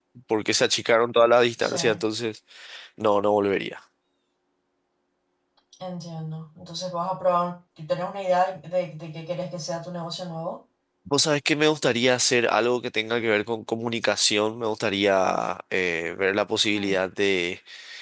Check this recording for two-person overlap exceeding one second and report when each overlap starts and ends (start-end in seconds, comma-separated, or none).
none